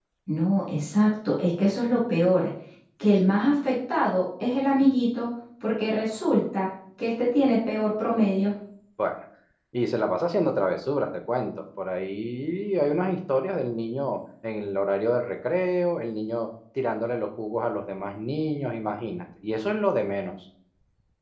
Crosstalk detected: No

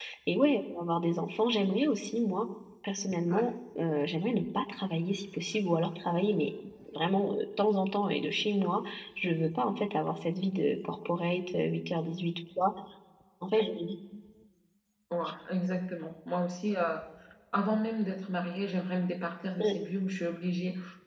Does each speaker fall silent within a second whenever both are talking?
Yes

